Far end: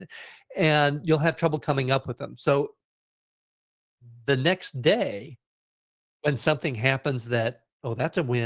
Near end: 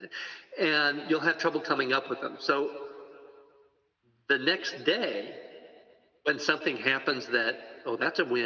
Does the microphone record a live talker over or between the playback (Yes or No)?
No